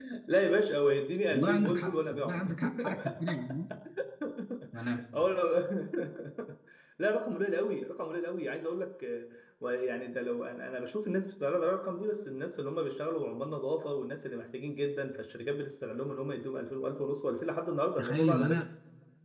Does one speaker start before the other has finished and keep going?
Yes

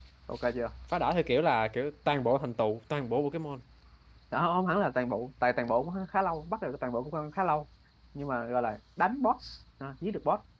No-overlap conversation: Yes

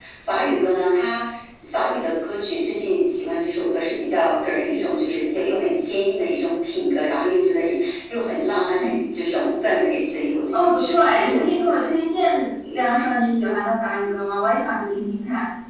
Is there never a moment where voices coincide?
No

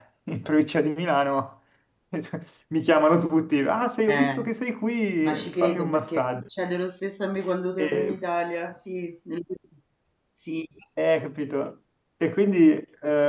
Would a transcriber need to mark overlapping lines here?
Yes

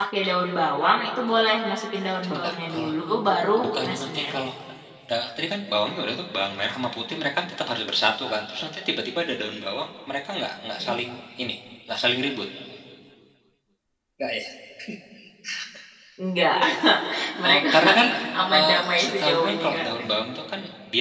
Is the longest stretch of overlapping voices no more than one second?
No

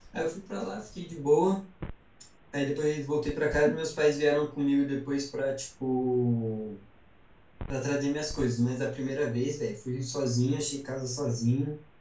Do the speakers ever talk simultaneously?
No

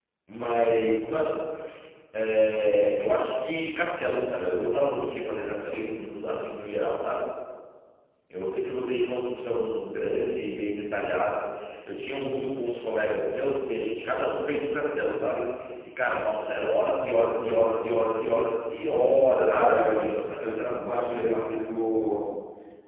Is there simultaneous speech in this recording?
Yes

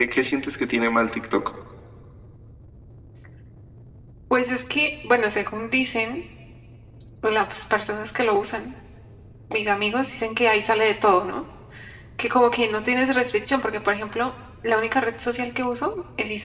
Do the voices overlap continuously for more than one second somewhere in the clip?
No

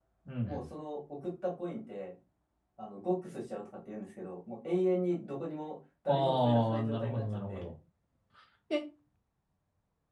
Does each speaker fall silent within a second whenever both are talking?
No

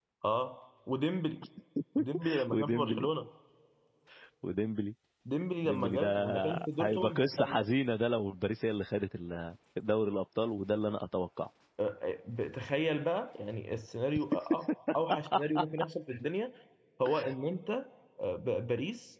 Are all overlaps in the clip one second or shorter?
No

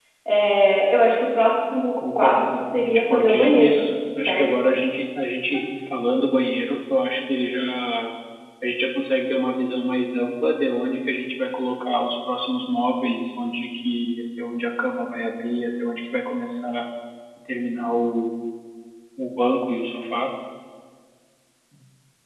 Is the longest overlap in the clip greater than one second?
Yes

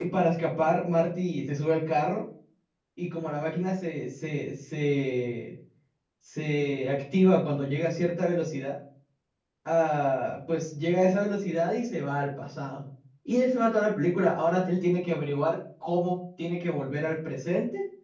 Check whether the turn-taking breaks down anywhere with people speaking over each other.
No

